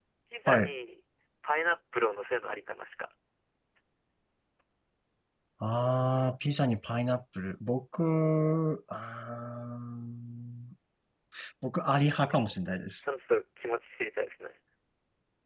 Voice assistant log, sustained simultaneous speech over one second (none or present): none